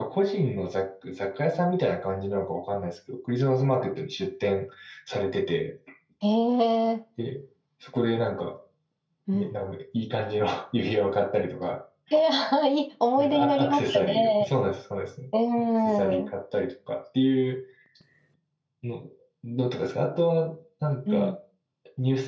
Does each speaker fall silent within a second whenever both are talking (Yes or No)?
No